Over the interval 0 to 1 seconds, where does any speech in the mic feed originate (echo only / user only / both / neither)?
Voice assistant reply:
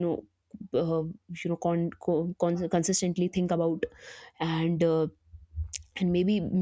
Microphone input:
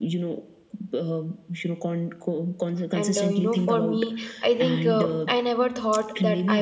echo only